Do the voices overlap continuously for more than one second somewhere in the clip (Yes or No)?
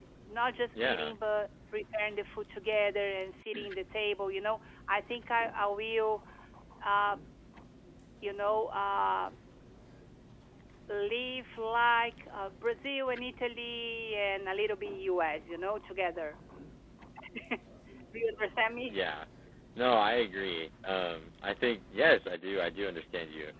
No